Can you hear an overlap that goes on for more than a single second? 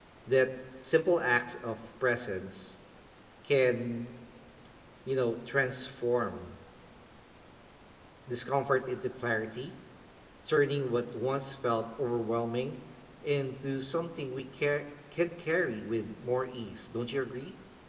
No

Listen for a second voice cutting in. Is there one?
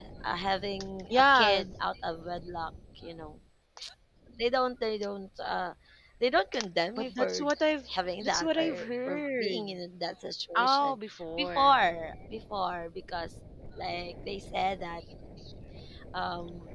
Yes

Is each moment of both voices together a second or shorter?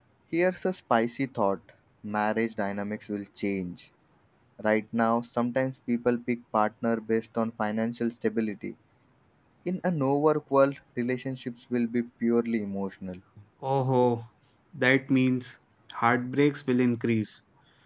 Yes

